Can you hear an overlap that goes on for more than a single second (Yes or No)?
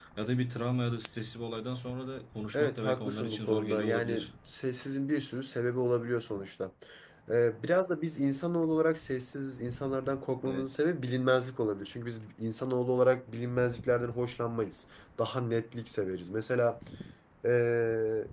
Yes